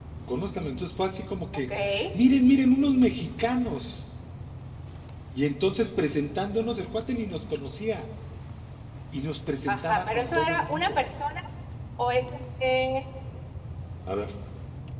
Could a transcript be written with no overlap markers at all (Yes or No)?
No